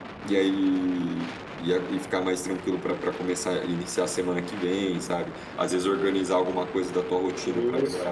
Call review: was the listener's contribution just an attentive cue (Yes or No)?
Yes